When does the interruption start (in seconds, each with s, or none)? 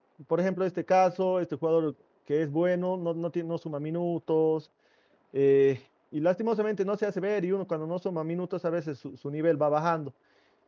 none